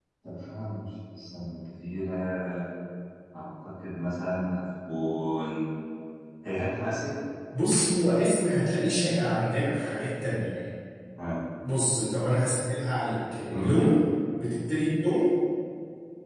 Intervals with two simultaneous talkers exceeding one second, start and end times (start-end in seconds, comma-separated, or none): none